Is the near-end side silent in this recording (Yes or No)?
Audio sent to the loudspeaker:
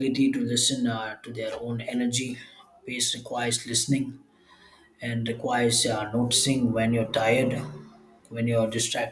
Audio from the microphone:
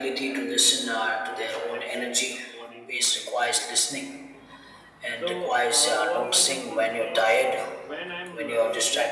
No